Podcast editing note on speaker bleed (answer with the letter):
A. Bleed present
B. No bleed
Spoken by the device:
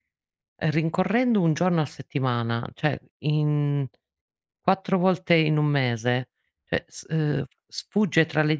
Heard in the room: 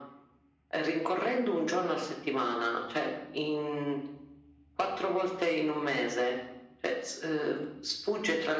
A